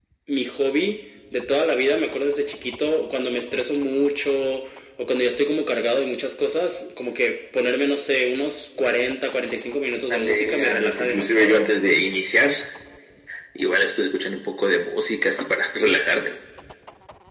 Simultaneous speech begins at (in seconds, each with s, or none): 10.1 s